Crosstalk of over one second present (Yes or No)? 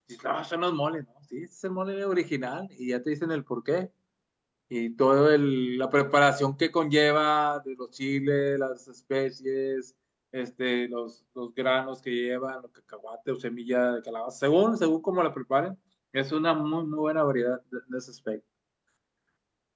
No